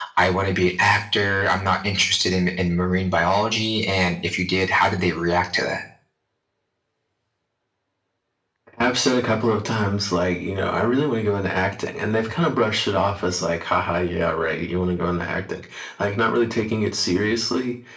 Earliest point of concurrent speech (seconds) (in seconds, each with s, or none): none